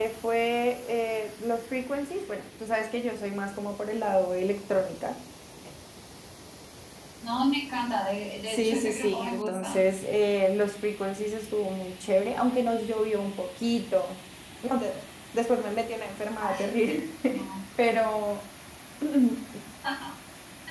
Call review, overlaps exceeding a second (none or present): present